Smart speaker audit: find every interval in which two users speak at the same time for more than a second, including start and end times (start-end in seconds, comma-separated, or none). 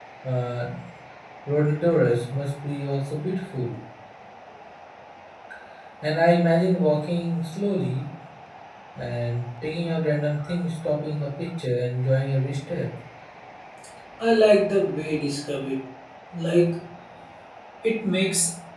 none